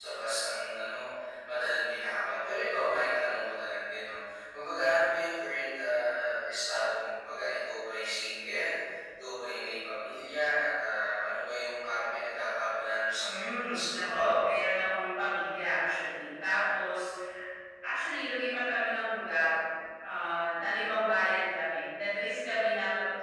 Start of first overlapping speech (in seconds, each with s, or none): 13.2 s